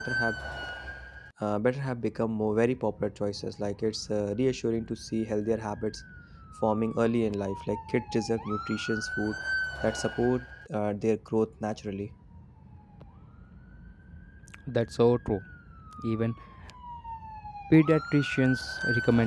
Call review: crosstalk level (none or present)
none